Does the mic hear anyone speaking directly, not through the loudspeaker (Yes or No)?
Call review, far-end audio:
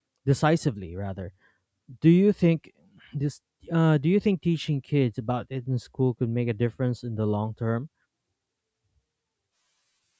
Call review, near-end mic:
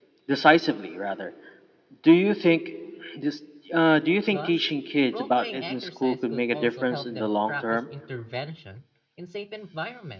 Yes